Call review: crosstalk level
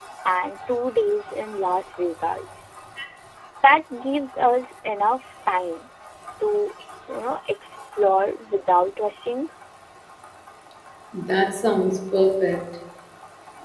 none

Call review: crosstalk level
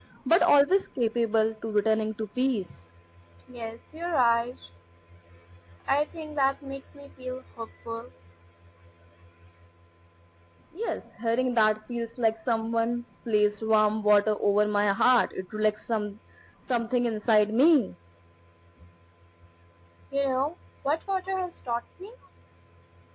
none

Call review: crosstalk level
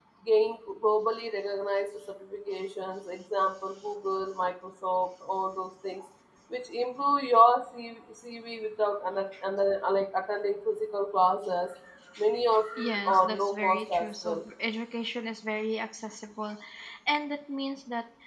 present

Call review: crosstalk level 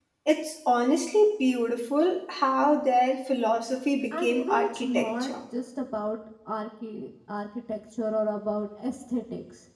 present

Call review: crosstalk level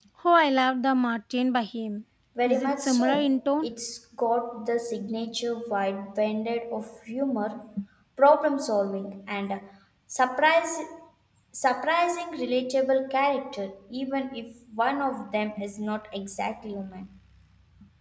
present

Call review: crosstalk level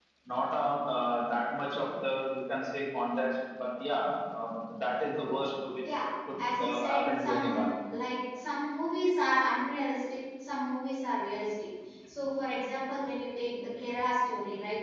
present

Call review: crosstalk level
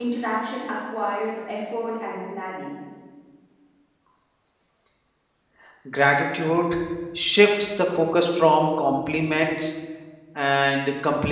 none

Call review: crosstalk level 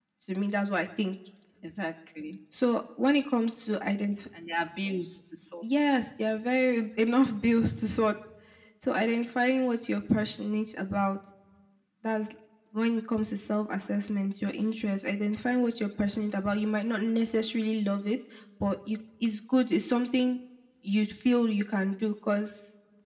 none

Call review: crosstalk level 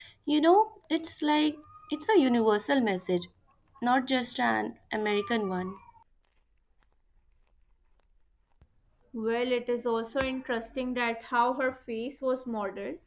none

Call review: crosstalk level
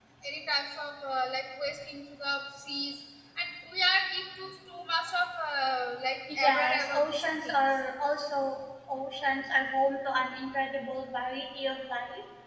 present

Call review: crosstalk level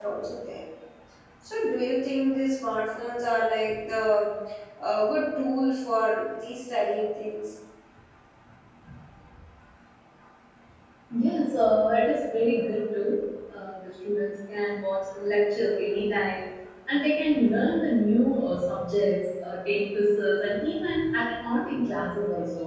none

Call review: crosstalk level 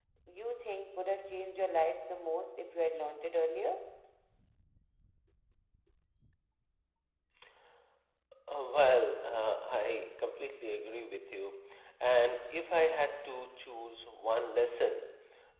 none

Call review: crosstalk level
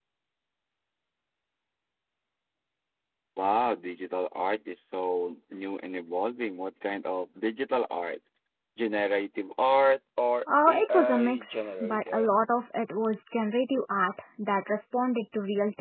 present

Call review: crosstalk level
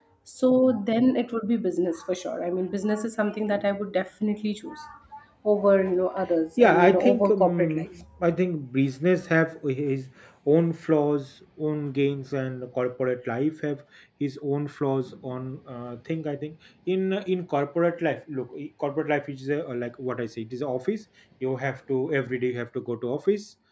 present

